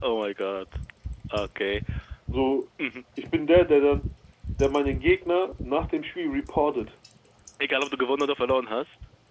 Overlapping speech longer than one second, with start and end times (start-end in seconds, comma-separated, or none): none